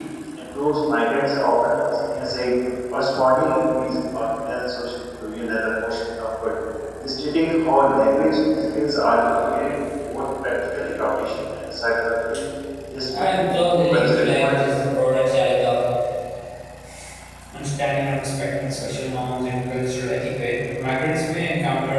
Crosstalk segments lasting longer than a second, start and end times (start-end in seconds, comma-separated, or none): 13.2-14.7